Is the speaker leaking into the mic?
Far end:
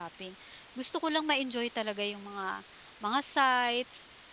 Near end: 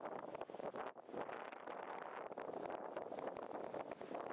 No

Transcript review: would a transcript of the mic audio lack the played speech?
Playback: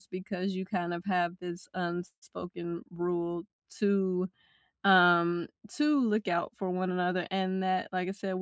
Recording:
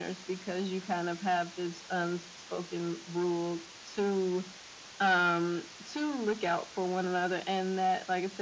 No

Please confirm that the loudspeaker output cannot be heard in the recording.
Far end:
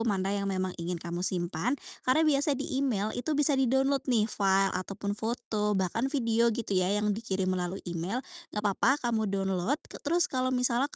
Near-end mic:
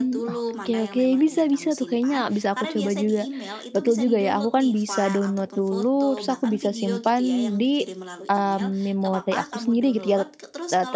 No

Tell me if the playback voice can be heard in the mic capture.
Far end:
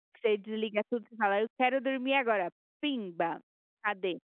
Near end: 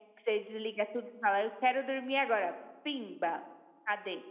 Yes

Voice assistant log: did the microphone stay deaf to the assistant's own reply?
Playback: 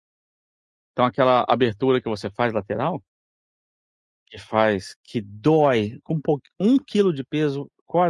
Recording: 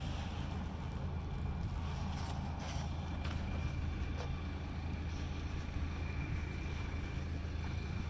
Yes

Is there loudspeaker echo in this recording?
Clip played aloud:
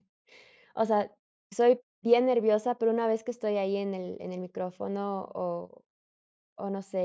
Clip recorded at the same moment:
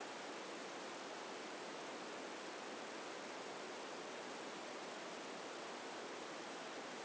No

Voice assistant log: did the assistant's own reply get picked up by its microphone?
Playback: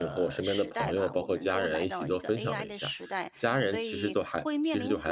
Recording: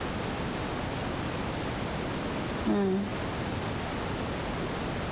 No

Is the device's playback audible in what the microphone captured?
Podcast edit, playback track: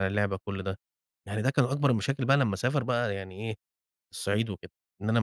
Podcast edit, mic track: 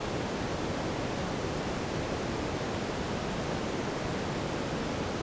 No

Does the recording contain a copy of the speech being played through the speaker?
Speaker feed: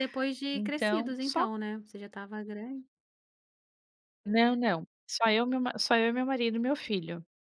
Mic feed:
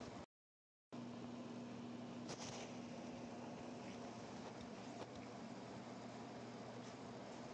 No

